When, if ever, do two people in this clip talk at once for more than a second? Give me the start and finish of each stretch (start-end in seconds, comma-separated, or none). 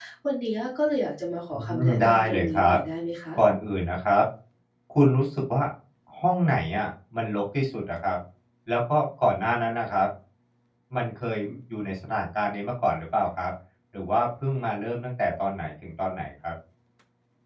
1.5-2.8